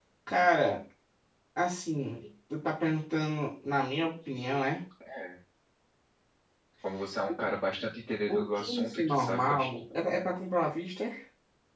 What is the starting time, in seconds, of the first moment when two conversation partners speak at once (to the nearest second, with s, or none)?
8 s